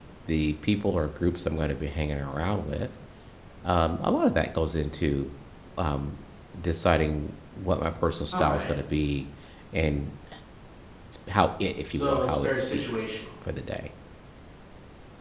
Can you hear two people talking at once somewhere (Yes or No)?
Yes